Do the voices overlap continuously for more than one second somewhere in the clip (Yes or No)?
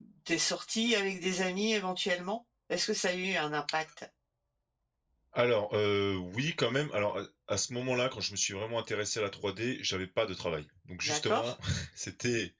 No